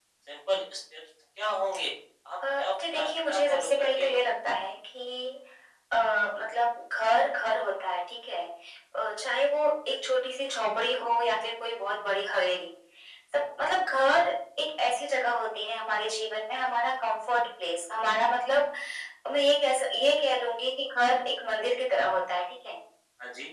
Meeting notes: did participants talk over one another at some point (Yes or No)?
Yes